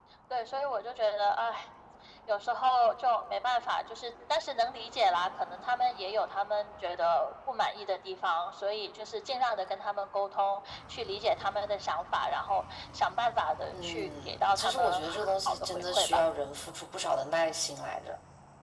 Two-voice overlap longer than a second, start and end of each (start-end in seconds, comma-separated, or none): 13.7-16.3